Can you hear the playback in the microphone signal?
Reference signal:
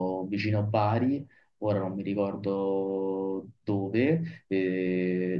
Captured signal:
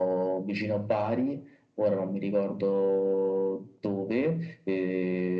Yes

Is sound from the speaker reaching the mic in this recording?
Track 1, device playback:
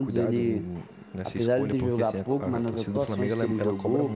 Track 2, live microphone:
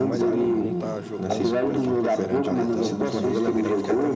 Yes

